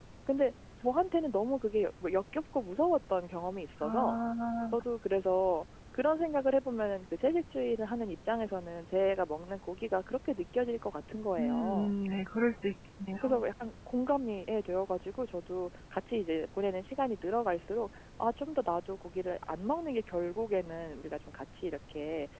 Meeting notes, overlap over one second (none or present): none